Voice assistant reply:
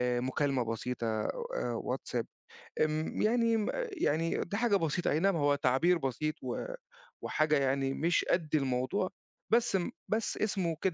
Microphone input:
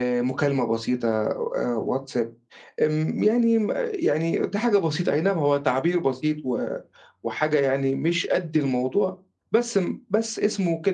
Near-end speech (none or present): none